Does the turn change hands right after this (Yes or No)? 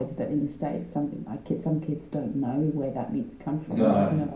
No